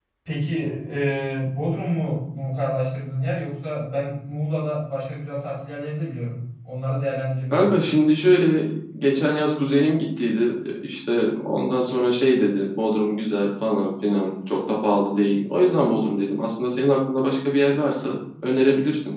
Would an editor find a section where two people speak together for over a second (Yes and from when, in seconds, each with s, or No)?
No